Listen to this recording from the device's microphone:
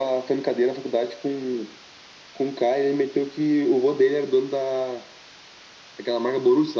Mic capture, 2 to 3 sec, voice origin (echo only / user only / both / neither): echo only